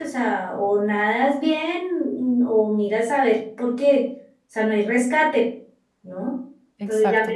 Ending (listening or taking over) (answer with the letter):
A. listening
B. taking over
A